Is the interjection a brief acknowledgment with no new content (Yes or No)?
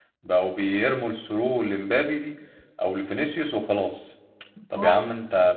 Yes